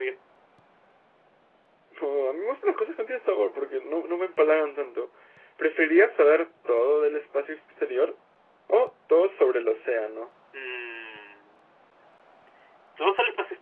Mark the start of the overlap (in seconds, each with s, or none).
none